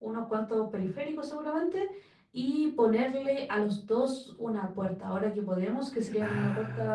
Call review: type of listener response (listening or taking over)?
listening